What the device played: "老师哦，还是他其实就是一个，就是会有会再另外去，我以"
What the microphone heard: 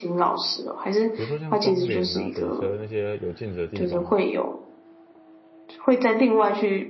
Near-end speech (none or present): present